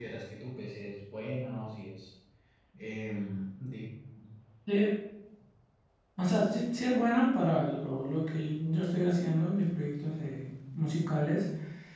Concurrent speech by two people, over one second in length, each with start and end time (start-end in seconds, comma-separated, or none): none